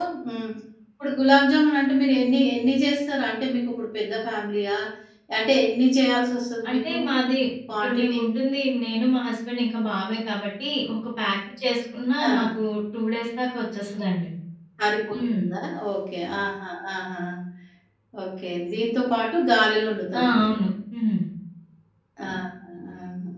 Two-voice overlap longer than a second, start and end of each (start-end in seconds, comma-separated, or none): none